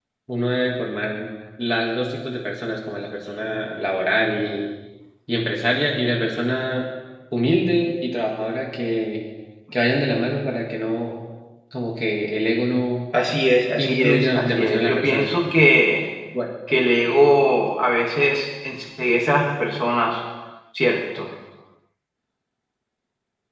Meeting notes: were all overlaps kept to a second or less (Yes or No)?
No